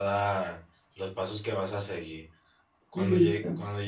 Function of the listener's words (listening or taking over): listening